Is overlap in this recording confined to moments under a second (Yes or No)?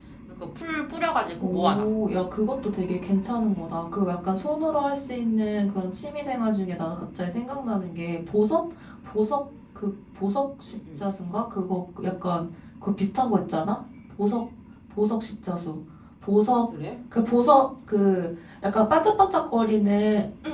Yes